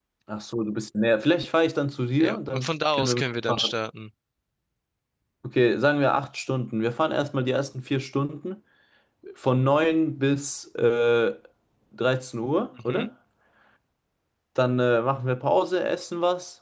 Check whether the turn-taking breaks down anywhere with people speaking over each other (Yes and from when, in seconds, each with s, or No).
Yes, from 2.2 s